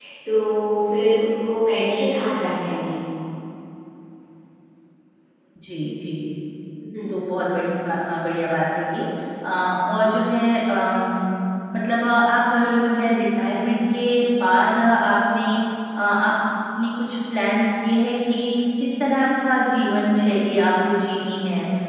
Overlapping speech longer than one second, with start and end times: none

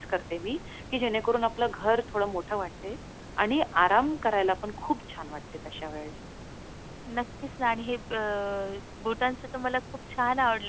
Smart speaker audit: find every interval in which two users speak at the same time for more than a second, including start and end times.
none

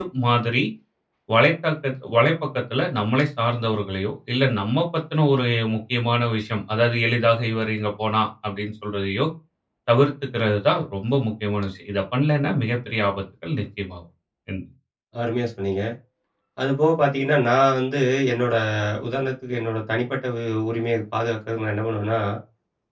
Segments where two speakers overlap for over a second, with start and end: none

